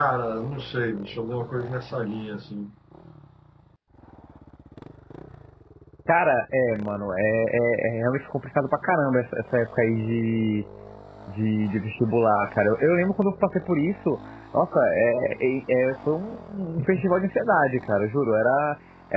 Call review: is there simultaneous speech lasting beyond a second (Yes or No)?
No